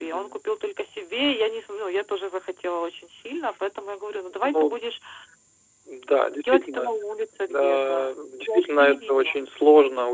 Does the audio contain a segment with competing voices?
Yes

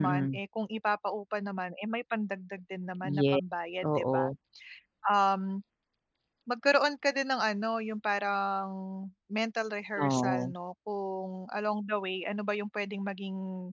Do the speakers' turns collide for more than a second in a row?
No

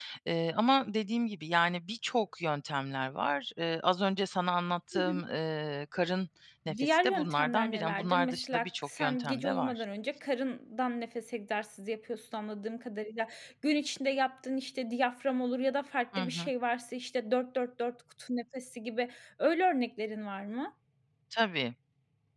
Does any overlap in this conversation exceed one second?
Yes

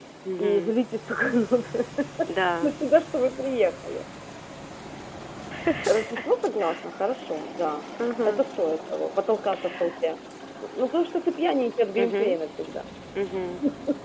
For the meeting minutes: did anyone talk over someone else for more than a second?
No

